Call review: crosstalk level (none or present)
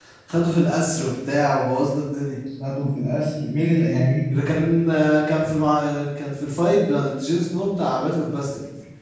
none